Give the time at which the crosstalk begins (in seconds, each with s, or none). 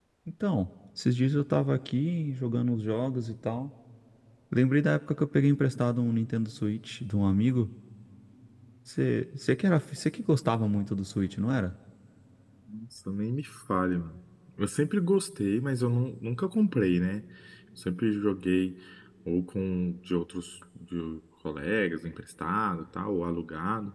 none